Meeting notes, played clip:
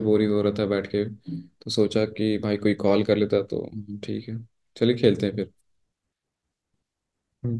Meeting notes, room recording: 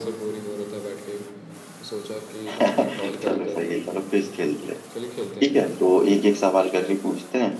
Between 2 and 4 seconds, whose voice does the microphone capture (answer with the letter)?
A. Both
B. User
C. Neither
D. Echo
A